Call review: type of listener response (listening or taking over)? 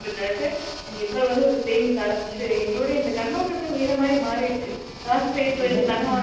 listening